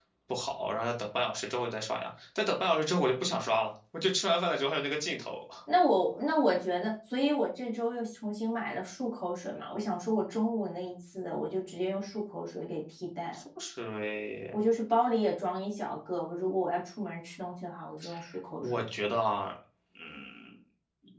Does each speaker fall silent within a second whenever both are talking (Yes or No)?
Yes